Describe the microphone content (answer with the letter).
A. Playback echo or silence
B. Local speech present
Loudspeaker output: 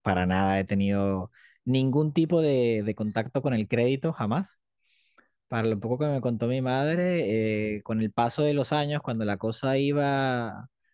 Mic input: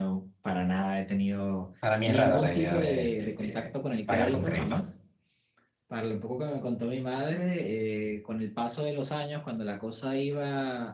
B